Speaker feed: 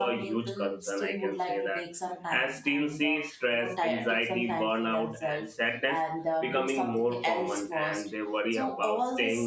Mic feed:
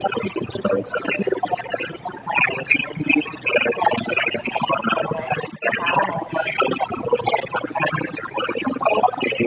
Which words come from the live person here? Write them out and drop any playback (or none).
right we have an option